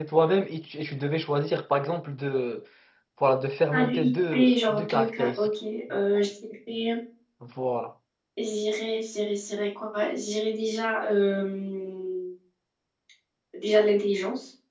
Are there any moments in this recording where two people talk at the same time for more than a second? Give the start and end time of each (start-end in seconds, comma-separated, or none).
3.7-5.5